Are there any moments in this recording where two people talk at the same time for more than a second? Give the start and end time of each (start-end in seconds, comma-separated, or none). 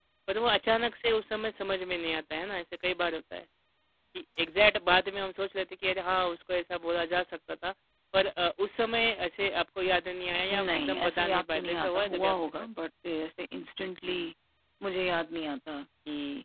10.5-12.7